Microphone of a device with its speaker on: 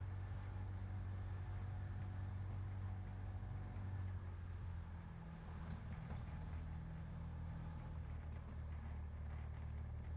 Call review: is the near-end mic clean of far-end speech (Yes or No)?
Yes